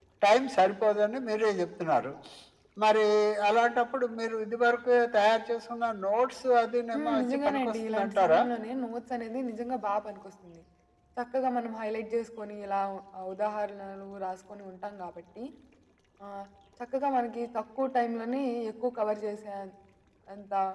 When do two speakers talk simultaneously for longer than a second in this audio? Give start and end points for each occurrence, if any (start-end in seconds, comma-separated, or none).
6.9-8.4